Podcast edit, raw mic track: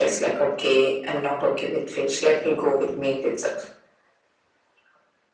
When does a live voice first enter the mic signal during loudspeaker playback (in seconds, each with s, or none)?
none